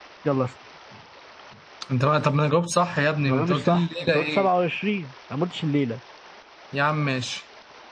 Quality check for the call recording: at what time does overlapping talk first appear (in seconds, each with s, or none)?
3.2 s